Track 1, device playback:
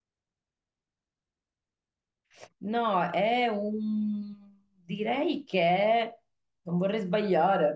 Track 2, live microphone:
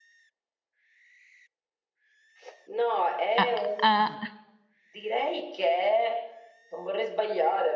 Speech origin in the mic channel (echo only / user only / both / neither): both